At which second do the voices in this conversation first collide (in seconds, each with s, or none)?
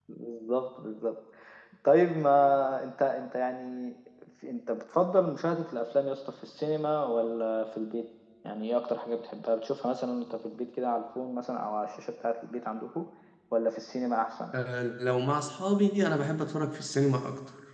none